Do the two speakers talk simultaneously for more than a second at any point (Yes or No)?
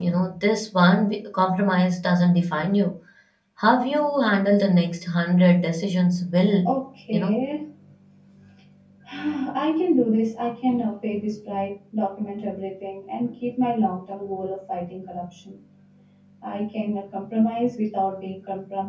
No